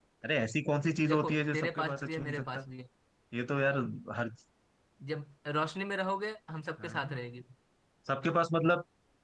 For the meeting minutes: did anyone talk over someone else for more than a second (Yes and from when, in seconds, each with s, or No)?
Yes, from 1.1 s